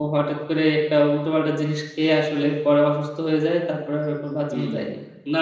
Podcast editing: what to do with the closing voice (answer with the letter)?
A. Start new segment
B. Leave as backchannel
A